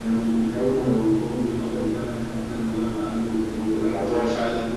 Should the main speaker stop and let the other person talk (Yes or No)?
No